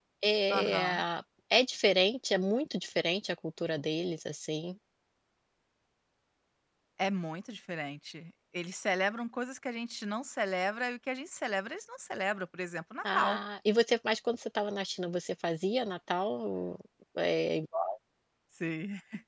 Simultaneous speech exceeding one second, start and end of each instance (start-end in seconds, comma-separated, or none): none